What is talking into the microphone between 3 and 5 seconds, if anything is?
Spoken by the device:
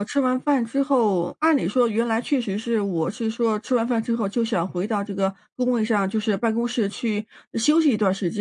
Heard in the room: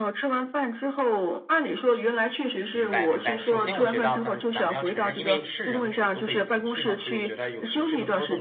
both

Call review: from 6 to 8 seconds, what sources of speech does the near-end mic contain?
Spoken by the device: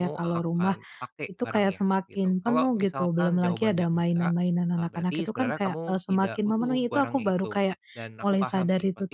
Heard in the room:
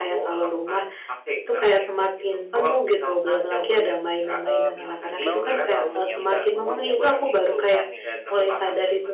both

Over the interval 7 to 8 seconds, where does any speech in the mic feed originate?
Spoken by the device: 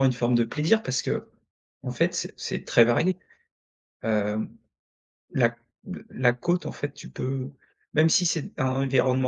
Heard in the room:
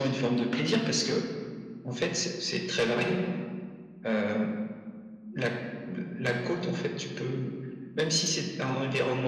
echo only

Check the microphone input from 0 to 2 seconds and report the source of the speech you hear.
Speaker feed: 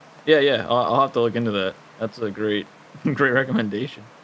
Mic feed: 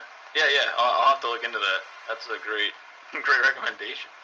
echo only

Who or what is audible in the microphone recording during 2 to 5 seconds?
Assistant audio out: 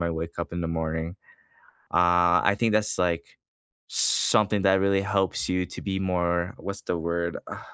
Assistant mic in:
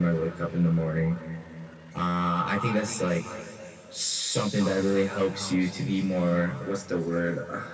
echo only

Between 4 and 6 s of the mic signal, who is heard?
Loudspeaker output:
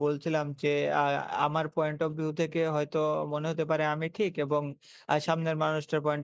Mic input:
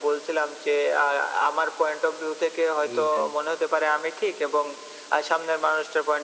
echo only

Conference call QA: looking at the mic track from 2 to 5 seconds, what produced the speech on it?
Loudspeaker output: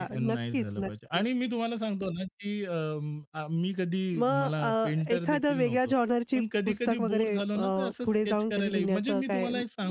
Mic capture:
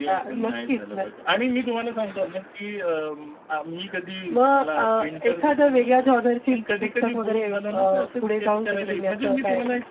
echo only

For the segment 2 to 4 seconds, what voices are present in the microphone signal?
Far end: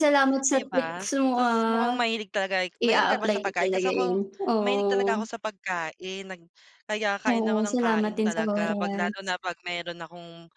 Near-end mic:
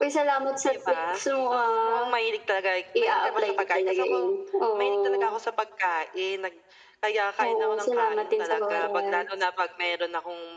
echo only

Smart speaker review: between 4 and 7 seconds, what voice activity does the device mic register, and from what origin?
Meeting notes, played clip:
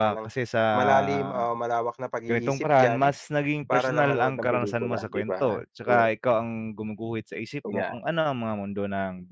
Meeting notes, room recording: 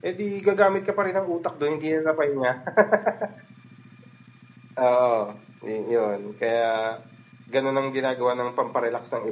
user only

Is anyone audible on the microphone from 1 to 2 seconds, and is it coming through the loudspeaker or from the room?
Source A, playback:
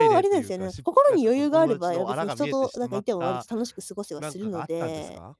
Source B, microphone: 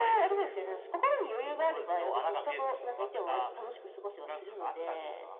echo only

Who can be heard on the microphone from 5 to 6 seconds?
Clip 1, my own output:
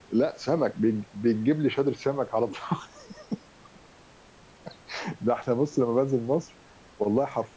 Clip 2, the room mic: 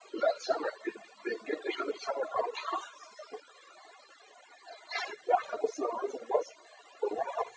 echo only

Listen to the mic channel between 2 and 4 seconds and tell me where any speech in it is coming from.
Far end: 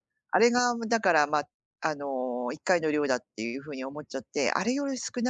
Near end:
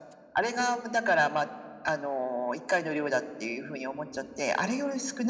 echo only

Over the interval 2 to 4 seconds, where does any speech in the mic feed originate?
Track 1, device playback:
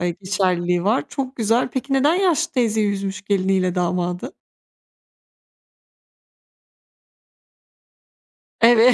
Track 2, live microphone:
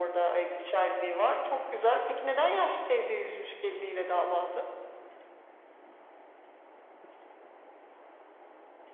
echo only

